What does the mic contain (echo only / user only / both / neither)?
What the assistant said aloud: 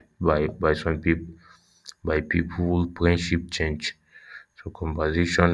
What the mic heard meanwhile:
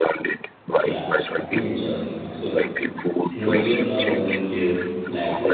both